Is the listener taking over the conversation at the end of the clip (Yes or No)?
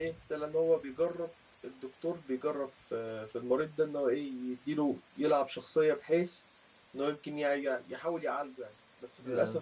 No